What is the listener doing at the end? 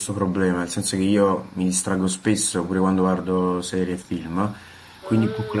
listening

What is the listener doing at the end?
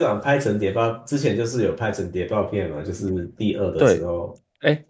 taking over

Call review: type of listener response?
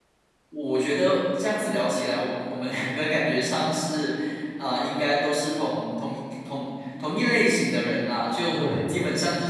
listening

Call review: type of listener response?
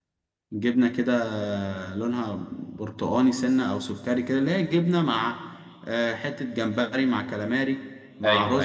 listening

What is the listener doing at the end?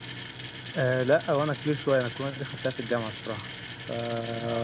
taking over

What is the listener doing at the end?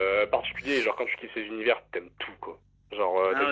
listening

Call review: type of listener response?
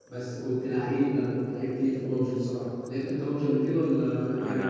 taking over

